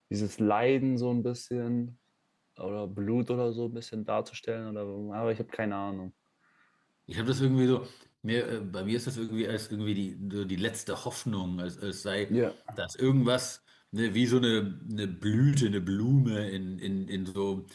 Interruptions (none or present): none